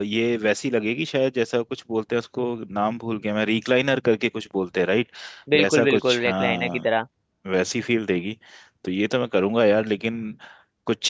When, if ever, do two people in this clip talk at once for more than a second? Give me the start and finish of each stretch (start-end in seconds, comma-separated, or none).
5.6-6.9